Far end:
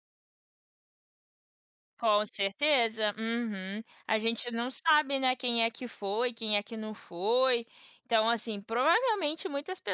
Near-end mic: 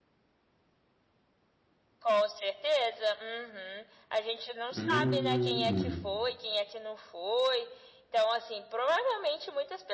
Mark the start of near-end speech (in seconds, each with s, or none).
4.8 s